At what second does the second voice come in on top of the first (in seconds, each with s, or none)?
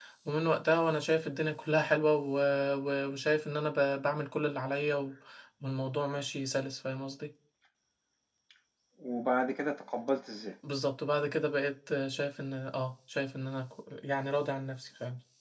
none